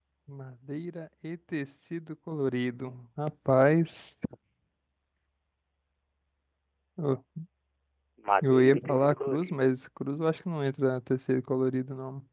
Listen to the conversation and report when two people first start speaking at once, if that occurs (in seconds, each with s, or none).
8.4 s